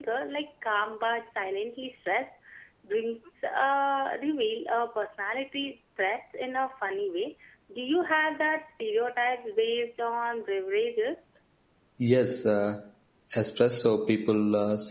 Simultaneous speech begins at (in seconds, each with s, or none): none